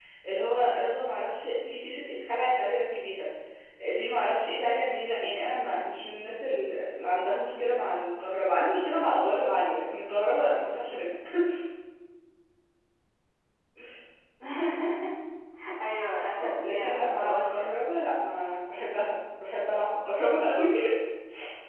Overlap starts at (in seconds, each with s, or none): 16.4 s